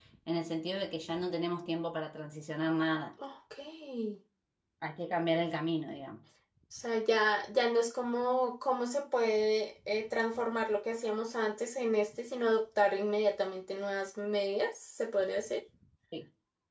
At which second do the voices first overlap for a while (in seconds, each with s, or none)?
none